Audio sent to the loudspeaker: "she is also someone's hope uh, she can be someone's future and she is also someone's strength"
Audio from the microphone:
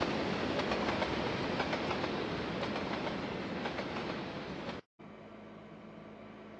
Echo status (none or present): none